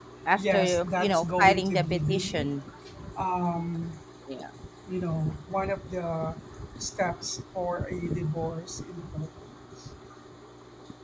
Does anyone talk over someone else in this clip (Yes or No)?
Yes